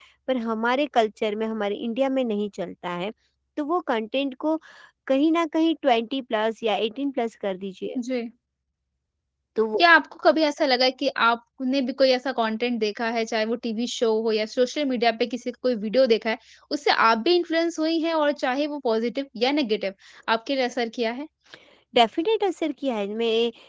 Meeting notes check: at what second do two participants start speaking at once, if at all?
none

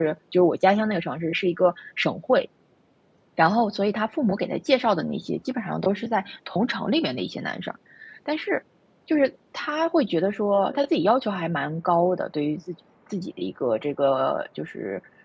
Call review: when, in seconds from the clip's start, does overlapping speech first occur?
none

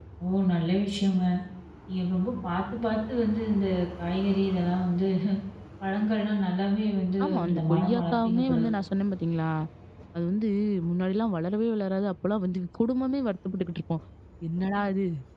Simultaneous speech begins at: 7.2 s

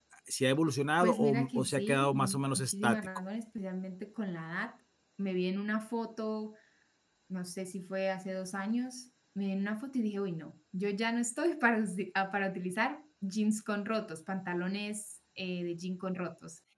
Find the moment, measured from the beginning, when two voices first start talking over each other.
1.0 s

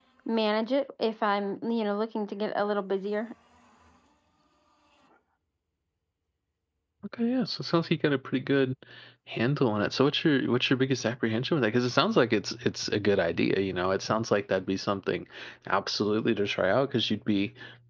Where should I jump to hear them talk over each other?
none

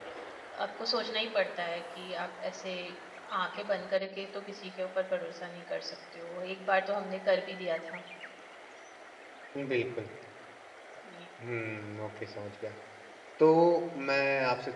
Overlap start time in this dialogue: none

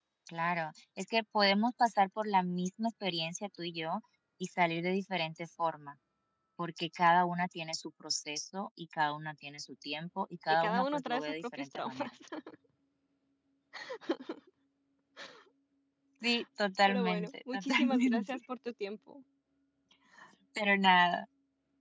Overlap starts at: 10.5 s

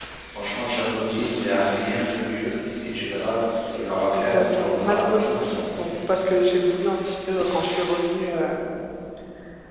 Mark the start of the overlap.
4.1 s

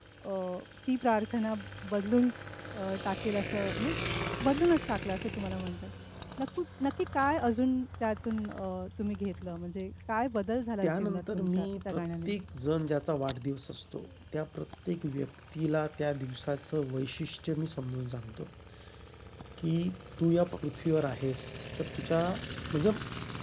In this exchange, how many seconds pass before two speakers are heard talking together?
10.8 s

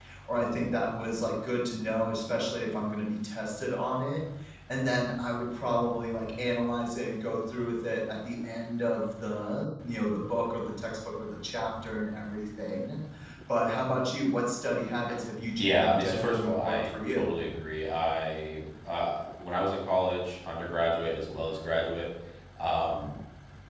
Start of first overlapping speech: 15.6 s

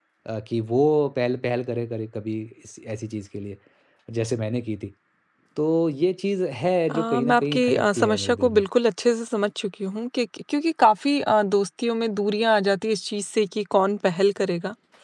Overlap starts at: 6.9 s

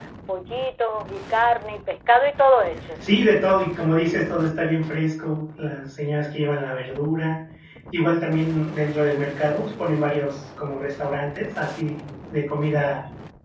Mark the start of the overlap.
none

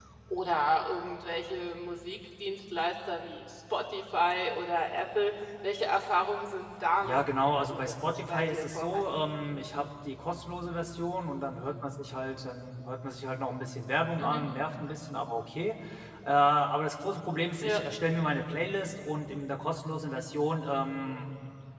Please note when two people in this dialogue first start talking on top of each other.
7.0 s

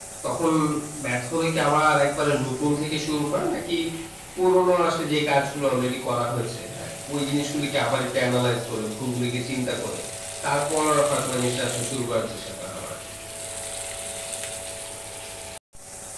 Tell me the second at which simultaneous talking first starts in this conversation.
none

